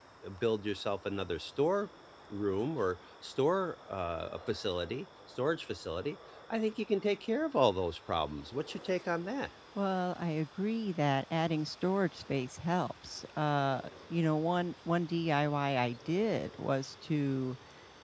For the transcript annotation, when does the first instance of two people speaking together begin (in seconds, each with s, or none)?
none